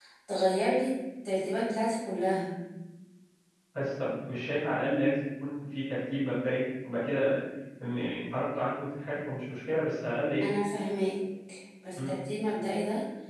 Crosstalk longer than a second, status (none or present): none